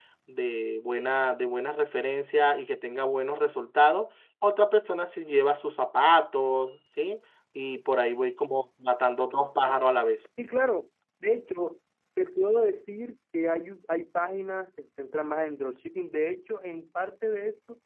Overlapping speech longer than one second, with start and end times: none

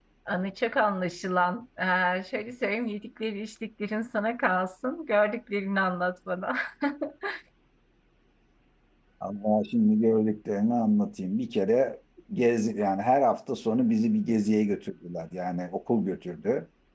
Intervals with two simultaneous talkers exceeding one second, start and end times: none

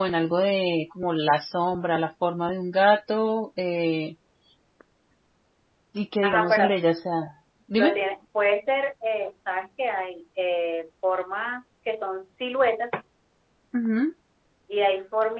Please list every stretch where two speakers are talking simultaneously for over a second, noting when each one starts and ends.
none

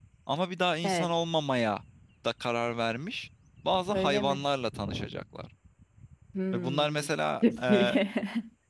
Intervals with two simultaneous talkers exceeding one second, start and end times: none

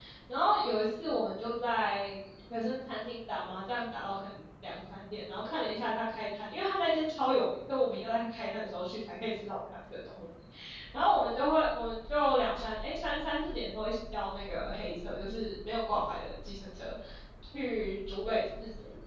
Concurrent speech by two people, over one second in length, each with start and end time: none

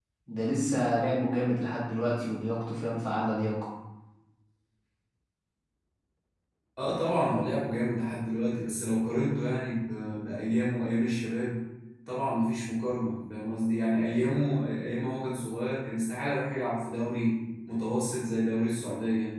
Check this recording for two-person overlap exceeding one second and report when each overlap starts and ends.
none

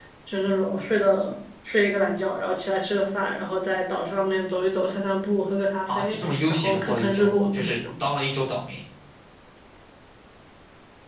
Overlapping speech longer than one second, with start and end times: 5.9-7.8

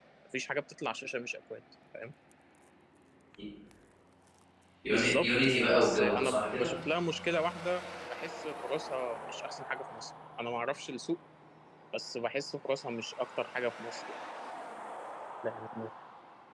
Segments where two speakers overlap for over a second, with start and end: 4.9-6.7

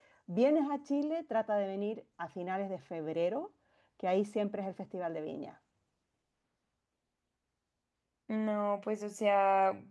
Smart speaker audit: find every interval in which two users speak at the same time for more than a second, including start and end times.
none

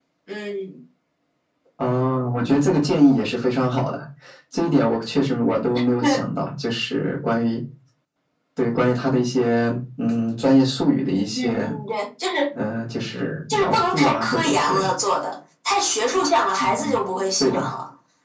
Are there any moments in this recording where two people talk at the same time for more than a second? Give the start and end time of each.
13.5-14.9

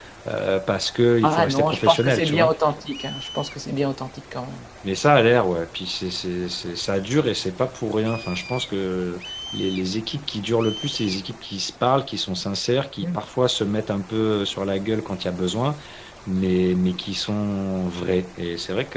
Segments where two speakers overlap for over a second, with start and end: 1.2-2.5

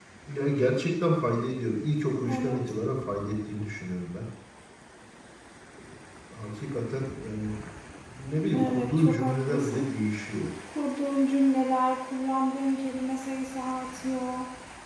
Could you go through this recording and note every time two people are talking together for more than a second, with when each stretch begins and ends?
8.5-9.9

